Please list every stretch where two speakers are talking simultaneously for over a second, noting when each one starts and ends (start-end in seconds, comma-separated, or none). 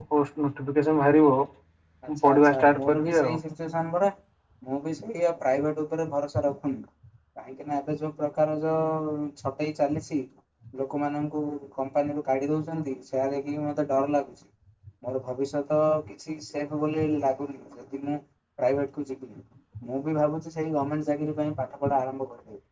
2.2-3.4